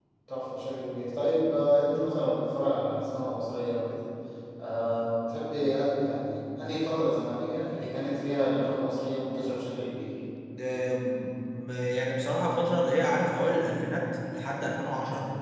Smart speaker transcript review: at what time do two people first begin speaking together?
none

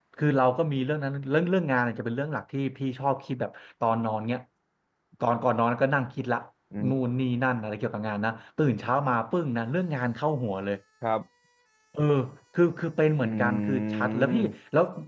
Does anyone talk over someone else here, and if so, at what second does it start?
13.2 s

